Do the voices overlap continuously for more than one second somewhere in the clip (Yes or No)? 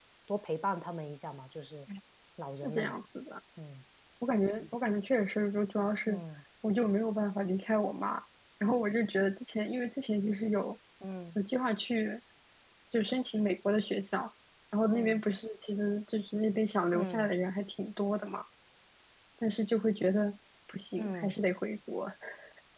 No